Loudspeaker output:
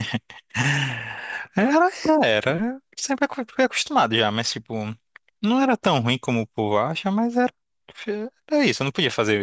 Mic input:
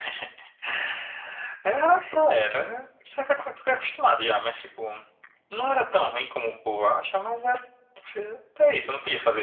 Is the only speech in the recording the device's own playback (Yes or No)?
Yes